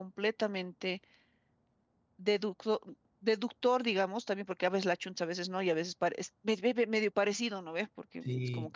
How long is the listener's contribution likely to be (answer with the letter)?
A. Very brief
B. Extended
A